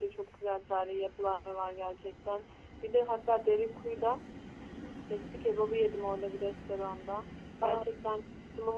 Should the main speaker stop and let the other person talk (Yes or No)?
No